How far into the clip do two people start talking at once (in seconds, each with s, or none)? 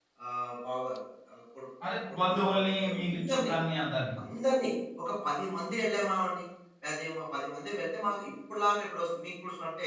1.8 s